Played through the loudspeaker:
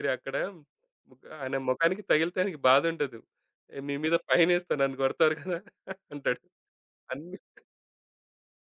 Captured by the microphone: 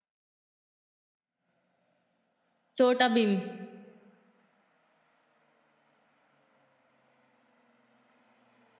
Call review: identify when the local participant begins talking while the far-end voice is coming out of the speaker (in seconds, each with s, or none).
2.8 s